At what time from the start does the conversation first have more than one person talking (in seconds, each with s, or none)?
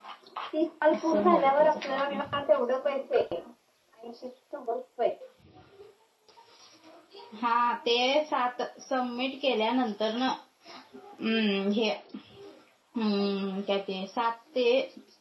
0.9 s